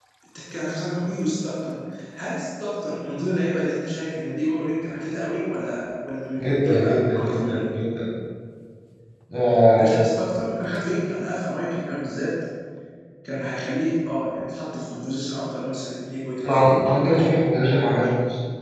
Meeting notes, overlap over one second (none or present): present